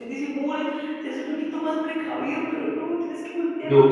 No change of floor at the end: Yes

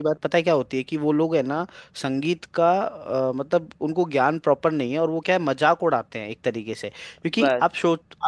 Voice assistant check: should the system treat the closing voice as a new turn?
No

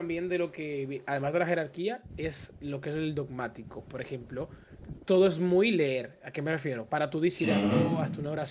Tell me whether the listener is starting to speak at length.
No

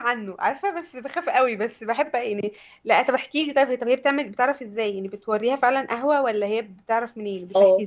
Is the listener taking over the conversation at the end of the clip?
Yes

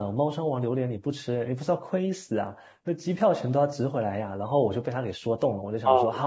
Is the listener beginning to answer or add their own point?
No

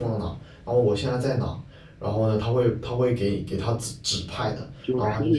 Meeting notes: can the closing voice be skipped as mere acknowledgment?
No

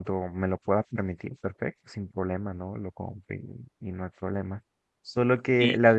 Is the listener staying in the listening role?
Yes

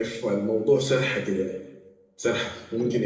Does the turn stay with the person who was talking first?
Yes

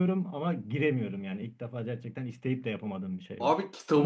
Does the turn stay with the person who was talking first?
No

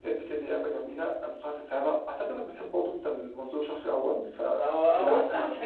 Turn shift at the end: Yes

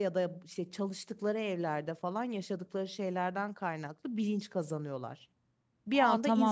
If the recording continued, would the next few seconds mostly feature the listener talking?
Yes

